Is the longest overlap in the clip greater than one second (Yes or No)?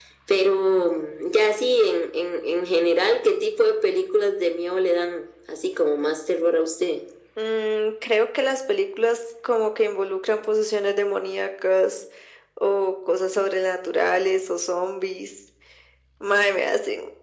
No